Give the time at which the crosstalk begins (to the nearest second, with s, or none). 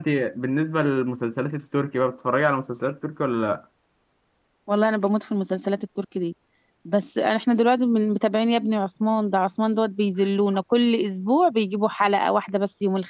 none